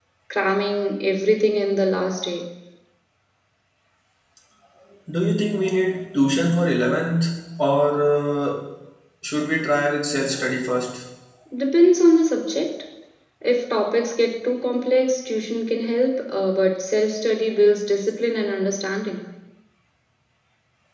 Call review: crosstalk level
none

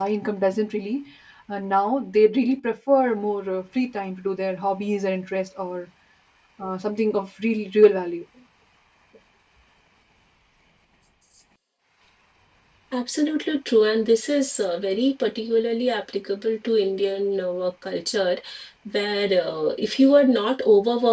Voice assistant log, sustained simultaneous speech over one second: none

